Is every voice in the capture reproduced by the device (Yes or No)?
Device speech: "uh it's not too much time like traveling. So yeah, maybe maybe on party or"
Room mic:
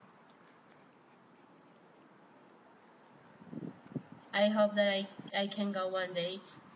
No